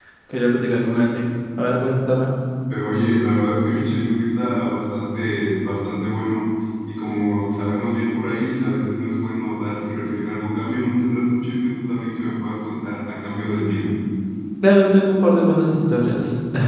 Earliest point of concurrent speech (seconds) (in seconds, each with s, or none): none